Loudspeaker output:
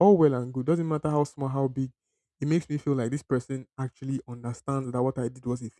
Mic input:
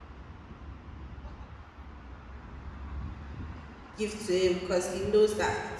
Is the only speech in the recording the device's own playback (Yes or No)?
No